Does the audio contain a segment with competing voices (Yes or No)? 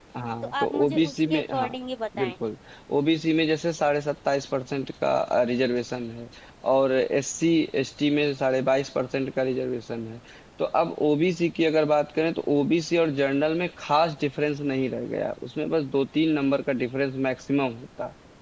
Yes